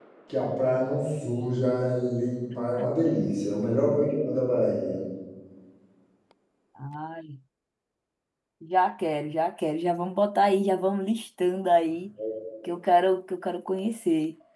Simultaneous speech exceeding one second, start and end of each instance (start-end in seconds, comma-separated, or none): none